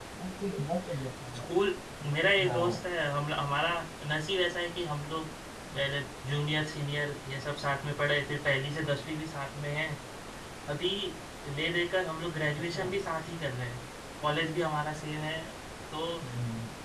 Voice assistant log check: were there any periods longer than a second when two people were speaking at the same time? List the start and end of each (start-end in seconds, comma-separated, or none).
none